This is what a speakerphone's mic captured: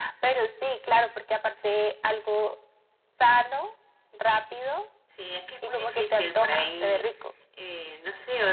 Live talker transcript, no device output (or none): none